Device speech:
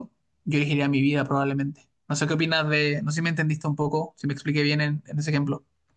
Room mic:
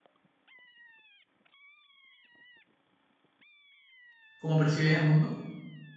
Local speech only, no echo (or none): cómo percibes el mundo.